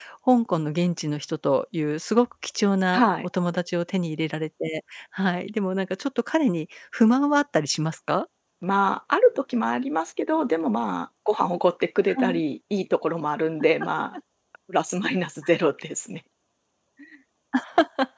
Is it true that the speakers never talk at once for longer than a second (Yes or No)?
Yes